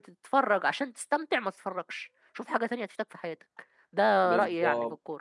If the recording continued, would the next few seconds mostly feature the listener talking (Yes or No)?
Yes